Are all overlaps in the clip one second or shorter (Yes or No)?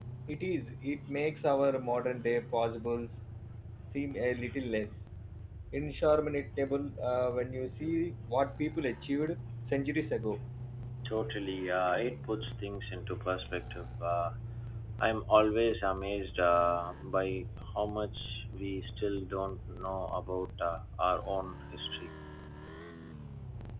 Yes